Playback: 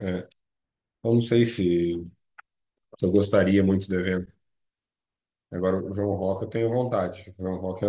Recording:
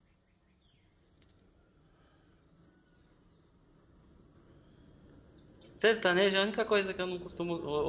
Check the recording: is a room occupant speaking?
Yes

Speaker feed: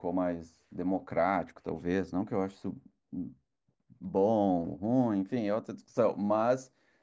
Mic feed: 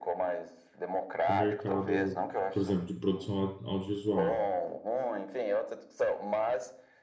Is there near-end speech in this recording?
Yes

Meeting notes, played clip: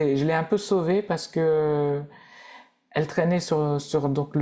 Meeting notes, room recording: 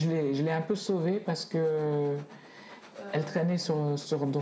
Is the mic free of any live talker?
No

